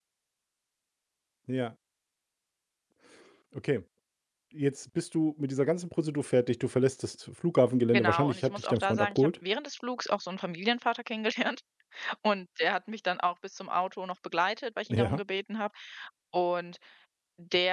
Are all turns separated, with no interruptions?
No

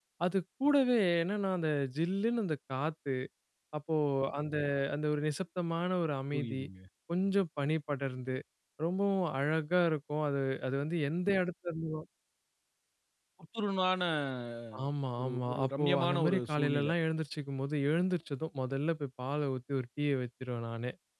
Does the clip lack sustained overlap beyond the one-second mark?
No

